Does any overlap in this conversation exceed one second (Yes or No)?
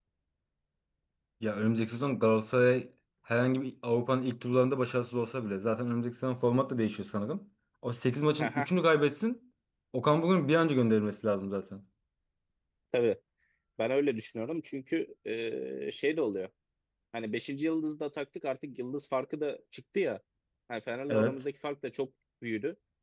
No